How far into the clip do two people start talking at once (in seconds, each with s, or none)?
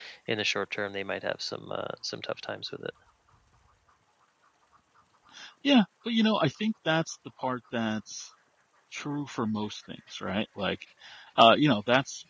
none